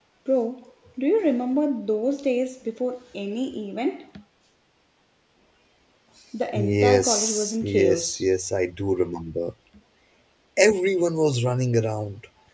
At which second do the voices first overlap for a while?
6.5 s

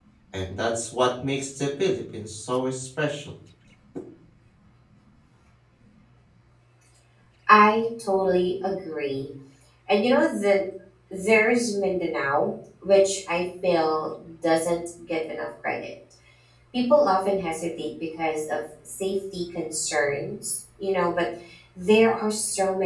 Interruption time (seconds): none

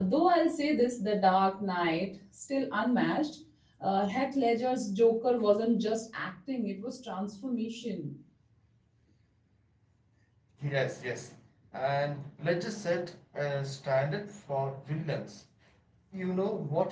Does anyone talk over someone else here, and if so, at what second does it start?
none

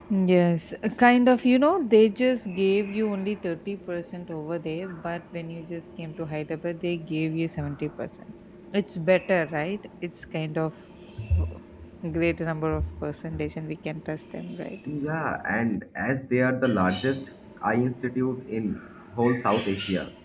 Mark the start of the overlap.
none

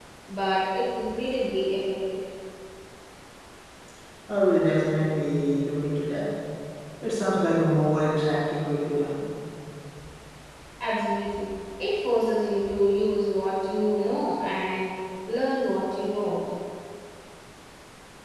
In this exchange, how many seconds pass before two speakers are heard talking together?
none

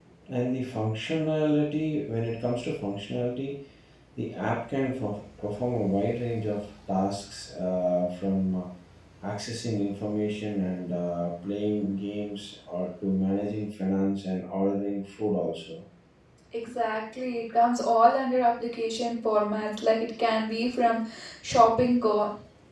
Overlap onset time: none

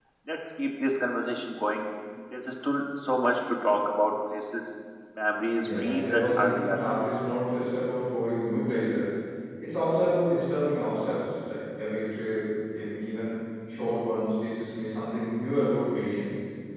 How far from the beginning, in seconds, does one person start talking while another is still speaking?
5.6 s

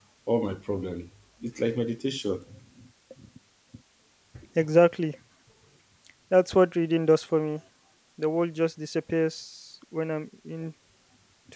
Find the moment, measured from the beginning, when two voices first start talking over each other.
none

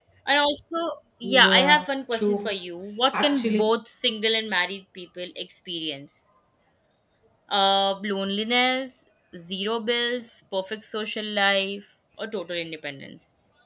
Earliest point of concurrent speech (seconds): 1.2 s

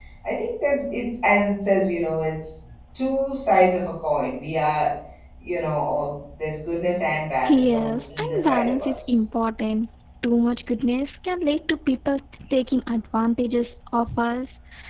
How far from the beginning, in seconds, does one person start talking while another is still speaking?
7.4 s

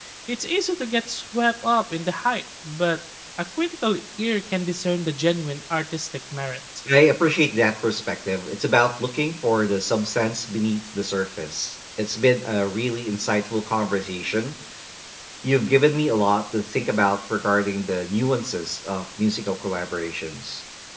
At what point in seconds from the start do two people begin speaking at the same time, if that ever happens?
none

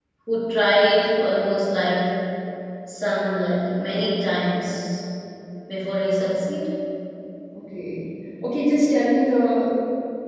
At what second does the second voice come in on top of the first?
none

